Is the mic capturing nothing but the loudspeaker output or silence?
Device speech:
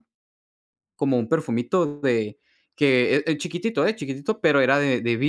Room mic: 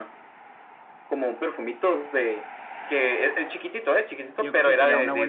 No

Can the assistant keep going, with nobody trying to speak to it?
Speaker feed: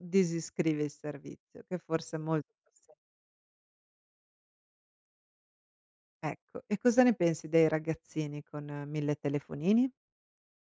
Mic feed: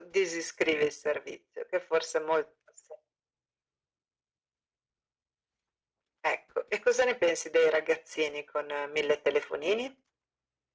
Yes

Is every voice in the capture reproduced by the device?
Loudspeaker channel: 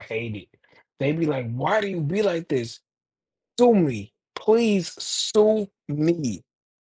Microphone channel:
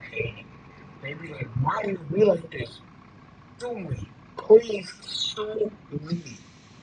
Yes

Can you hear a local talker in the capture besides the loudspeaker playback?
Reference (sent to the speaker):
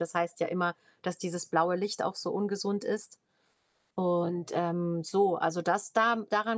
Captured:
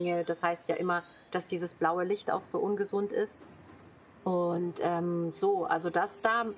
No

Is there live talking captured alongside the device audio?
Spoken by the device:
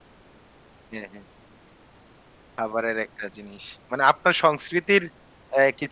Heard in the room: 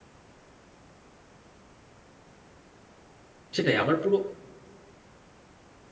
Yes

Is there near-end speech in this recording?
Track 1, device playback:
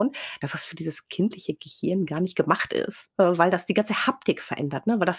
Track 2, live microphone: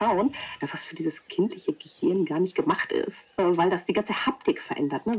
No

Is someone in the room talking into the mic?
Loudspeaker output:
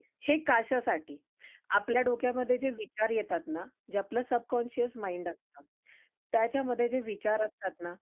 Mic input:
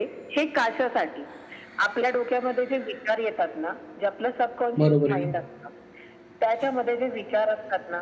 Yes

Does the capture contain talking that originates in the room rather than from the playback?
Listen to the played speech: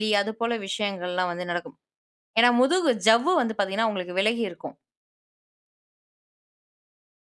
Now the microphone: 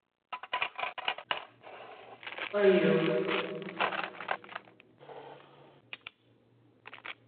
Yes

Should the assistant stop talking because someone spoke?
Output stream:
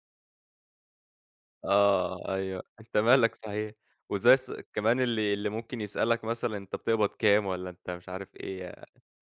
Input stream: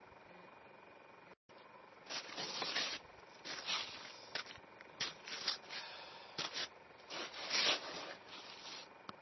No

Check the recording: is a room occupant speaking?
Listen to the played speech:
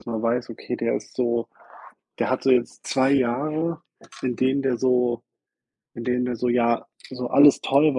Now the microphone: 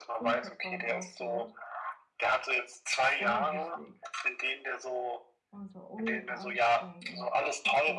Yes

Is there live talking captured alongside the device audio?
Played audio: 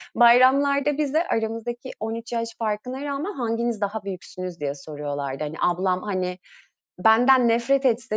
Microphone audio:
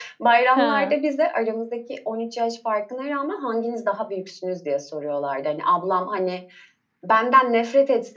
Yes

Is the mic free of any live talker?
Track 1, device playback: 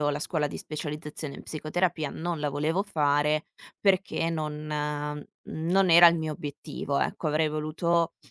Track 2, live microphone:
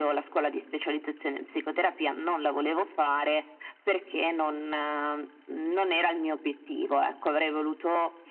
Yes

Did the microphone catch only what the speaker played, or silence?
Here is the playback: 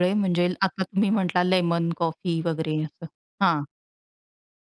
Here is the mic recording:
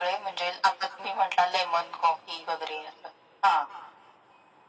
Yes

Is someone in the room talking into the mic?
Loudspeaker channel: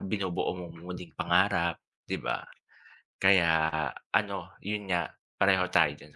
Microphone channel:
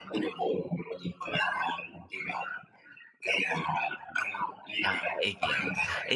Yes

